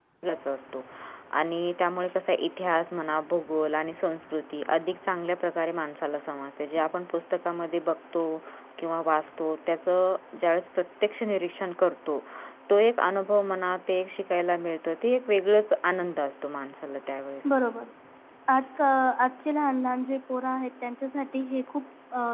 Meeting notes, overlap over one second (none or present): none